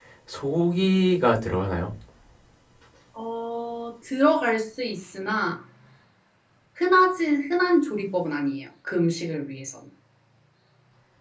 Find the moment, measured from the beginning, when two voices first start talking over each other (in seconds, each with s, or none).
none